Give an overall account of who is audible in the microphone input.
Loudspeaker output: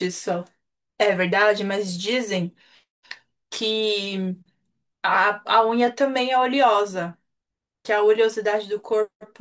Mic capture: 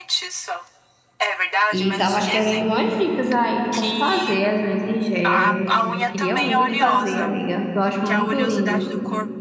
both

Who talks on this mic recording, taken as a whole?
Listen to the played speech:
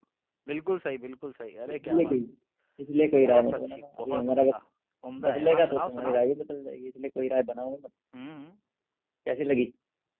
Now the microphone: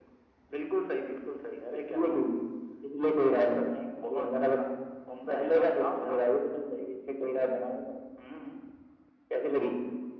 echo only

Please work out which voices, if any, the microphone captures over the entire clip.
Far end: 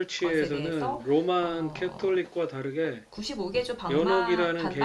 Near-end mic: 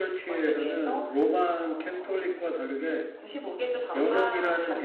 both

